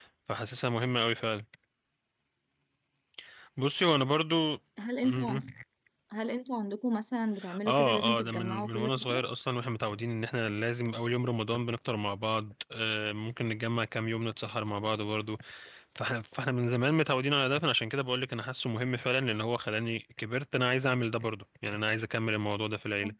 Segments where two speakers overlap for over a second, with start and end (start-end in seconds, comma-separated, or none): 7.7-9.2